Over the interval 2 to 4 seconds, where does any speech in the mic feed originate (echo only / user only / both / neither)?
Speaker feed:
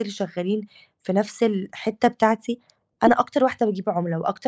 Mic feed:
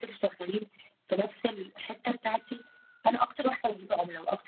echo only